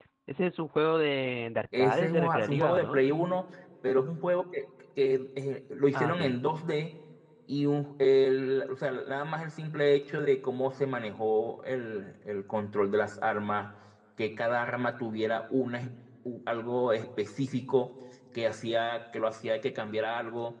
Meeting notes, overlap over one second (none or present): present